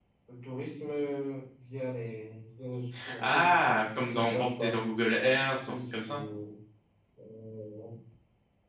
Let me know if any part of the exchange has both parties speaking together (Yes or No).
Yes